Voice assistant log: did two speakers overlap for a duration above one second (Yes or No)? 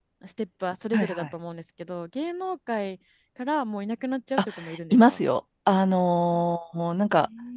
No